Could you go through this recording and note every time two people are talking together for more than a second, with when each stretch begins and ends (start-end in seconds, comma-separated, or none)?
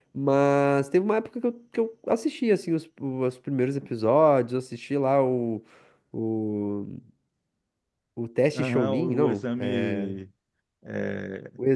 8.6-10.1